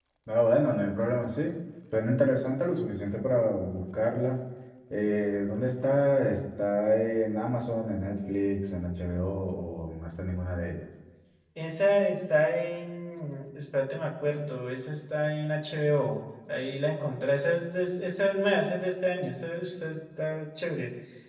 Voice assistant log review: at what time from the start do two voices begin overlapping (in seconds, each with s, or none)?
none